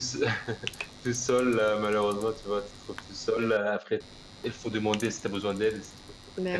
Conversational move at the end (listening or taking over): listening